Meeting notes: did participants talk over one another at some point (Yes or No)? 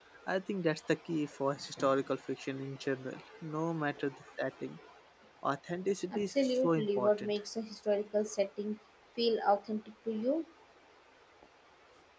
Yes